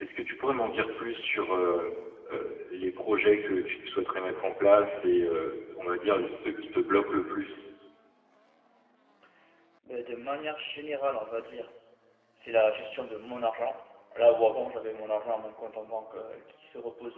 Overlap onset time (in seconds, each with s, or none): none